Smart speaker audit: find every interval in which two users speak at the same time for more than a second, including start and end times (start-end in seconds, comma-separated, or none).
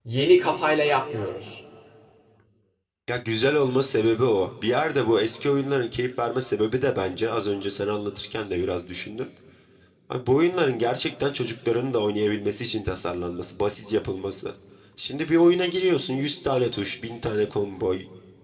none